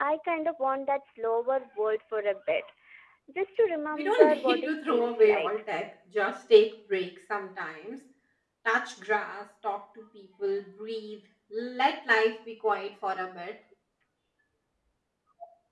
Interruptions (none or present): present